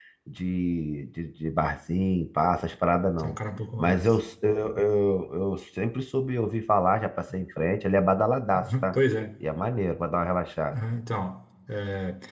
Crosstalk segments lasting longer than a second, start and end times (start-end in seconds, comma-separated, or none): none